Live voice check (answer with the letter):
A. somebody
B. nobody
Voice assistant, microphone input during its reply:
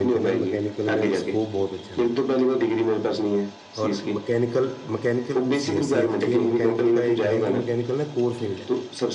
A